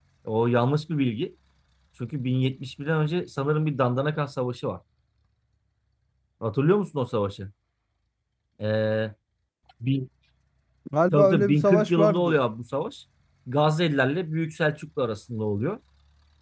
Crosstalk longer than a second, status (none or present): present